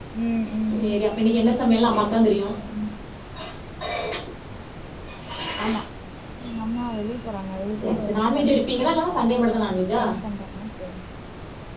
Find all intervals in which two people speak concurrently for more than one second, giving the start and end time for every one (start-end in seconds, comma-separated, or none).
7.8-9.3